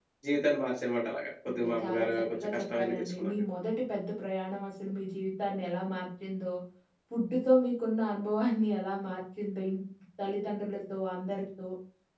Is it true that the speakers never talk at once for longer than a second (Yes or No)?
No